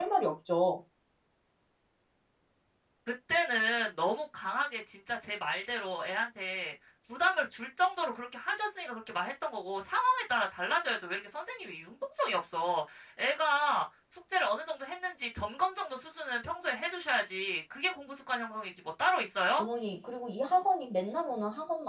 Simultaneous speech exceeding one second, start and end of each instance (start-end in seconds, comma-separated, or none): none